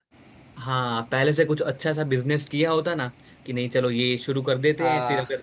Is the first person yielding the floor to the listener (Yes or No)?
No